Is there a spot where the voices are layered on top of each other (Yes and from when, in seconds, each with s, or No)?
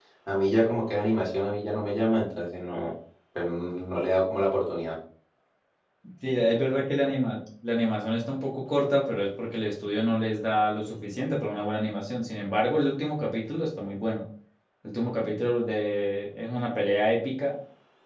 No